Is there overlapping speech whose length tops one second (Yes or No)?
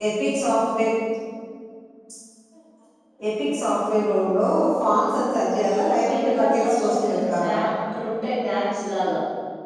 Yes